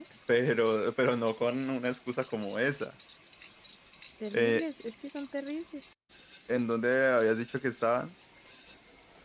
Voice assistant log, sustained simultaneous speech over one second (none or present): none